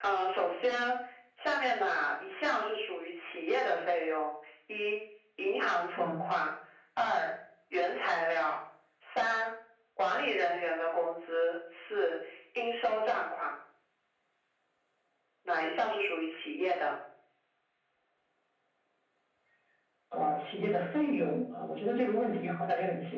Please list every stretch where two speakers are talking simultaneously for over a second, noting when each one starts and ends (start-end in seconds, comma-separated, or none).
none